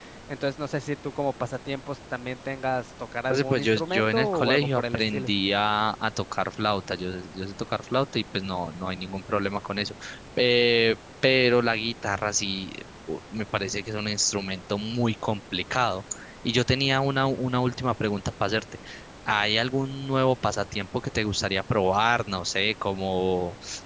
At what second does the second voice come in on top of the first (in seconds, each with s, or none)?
3.3 s